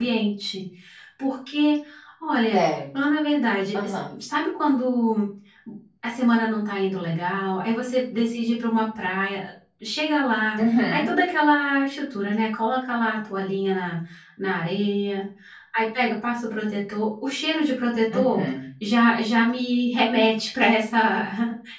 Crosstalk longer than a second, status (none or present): none